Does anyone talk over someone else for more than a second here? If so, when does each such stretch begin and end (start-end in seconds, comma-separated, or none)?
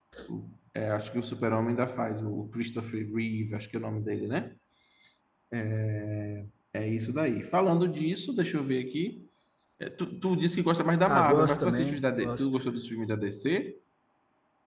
11.1-12.4